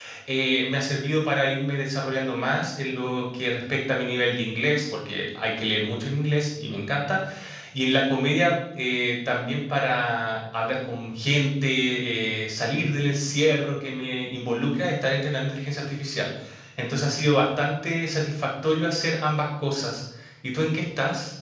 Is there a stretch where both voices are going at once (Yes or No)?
No